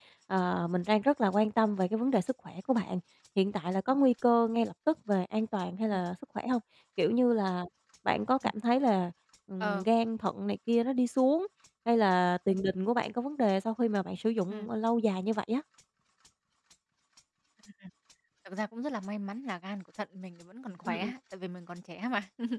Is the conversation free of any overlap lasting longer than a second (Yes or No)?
Yes